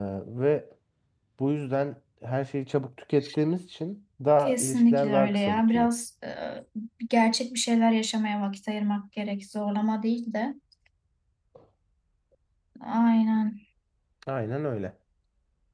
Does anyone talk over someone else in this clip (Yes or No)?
Yes